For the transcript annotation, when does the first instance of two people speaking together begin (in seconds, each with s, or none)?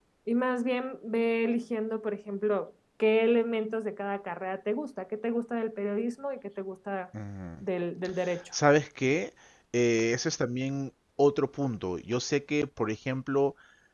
none